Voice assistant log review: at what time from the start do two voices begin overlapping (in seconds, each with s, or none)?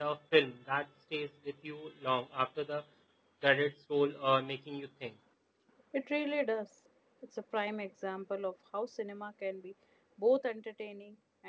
none